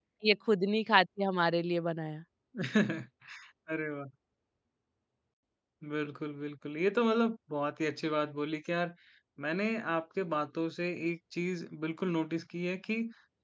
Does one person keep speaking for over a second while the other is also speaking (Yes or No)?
No